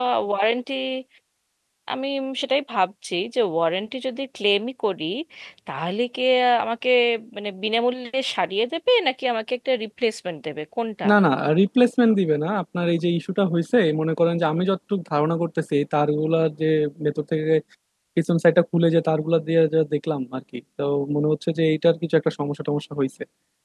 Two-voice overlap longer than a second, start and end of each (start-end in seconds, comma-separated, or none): none